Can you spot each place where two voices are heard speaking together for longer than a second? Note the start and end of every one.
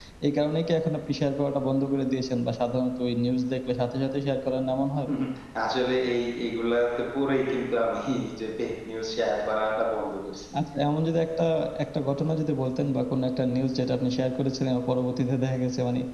none

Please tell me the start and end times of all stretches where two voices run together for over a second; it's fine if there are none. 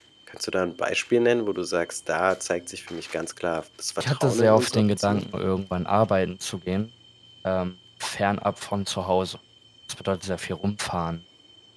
4.0-5.2

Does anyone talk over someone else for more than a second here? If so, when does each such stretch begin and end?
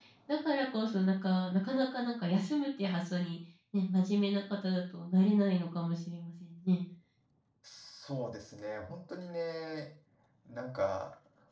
none

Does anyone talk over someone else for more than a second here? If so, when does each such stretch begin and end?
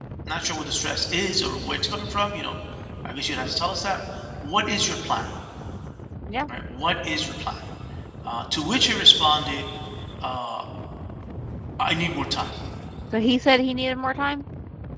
none

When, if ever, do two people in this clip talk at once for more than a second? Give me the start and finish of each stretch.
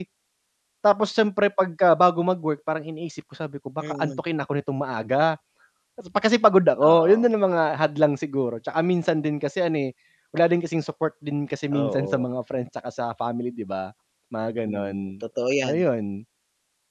none

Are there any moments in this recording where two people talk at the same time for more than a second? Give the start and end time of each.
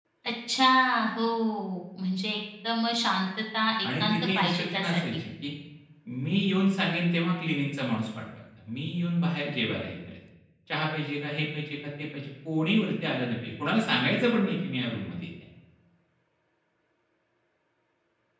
3.8-5.2

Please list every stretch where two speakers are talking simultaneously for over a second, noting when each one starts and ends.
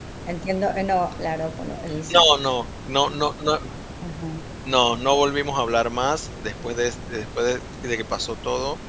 none

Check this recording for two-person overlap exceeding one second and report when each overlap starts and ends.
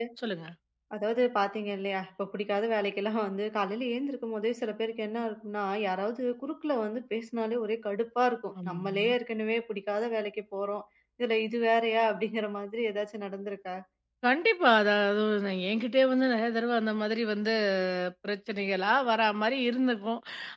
none

